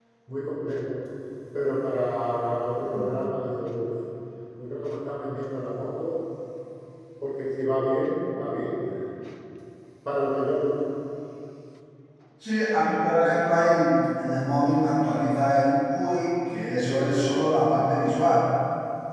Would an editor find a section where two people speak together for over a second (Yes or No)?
No